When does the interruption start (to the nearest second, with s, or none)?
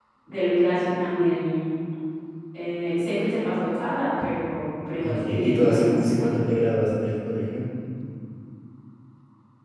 5 s